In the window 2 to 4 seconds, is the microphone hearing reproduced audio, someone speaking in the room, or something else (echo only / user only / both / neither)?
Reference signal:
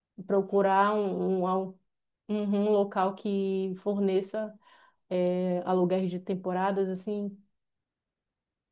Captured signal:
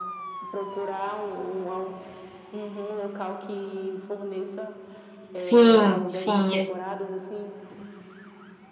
echo only